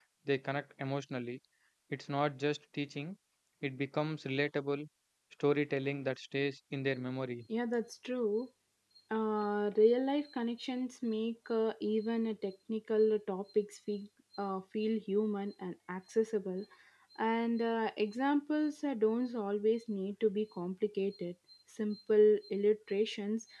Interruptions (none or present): none